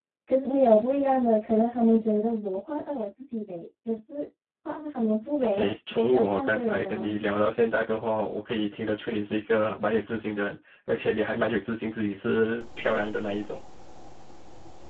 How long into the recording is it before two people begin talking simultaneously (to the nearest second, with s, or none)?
5 s